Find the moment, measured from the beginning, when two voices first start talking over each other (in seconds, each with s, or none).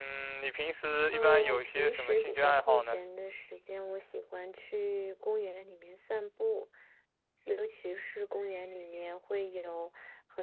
1.1 s